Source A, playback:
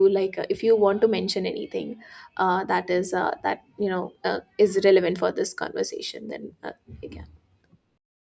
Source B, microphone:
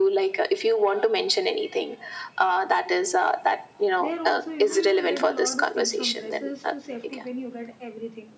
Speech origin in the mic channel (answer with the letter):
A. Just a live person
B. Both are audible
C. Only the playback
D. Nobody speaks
B